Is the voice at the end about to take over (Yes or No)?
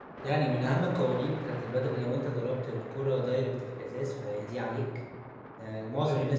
No